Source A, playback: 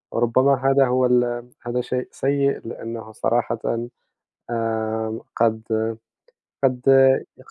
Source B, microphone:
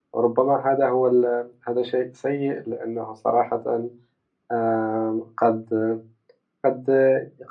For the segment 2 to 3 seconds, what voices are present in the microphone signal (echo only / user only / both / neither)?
echo only